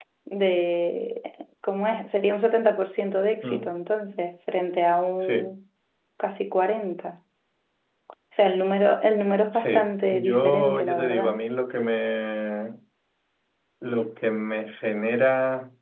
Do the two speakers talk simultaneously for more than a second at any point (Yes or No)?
Yes